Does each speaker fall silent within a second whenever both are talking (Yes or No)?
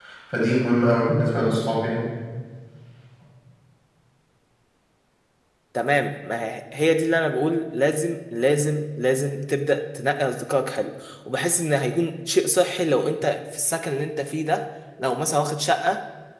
Yes